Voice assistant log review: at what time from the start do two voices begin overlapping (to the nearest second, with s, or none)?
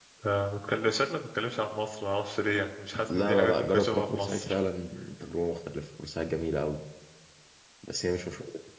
3 s